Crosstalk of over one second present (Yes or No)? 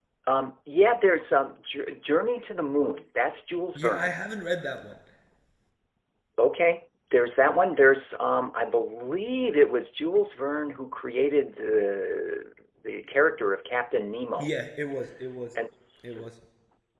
No